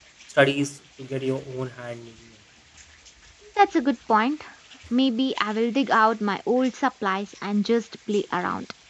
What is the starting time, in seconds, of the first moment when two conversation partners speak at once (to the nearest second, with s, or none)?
none